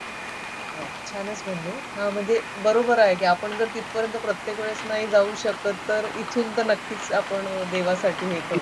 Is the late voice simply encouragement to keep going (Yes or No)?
No